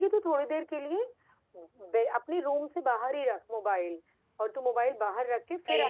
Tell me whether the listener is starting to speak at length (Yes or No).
No